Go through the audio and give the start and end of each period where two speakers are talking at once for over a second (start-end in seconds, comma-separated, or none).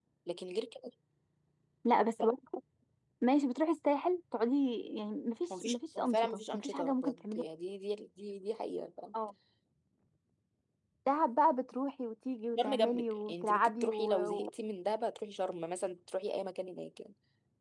5.6-7.4, 12.6-14.5